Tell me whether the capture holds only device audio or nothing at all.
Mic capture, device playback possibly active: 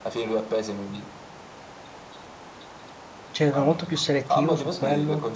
No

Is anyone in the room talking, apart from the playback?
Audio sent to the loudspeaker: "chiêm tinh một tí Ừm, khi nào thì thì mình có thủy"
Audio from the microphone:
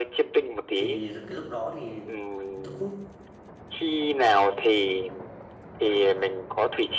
Yes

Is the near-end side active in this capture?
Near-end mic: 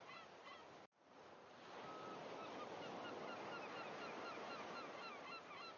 No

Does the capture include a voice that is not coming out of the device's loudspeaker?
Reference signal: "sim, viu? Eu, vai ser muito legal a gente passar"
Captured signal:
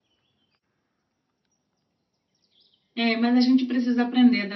Yes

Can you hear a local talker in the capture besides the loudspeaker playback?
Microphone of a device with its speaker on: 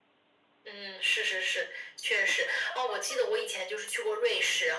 No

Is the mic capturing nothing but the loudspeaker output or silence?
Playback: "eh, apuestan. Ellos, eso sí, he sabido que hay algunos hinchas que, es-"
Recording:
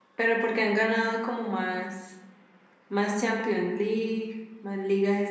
No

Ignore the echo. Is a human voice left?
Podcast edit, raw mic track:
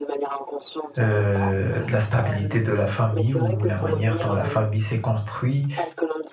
Yes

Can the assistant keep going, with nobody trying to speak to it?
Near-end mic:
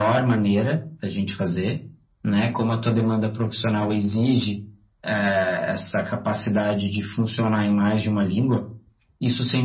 Yes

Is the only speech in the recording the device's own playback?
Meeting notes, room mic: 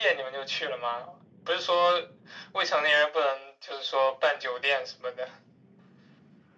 Yes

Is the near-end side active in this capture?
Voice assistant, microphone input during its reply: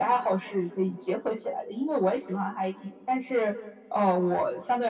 No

